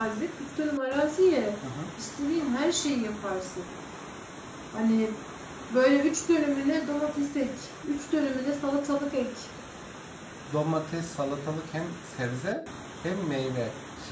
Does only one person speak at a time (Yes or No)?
Yes